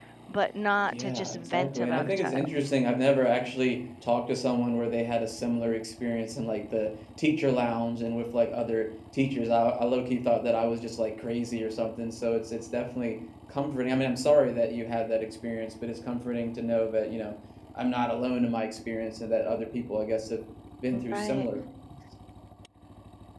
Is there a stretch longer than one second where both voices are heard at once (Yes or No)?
Yes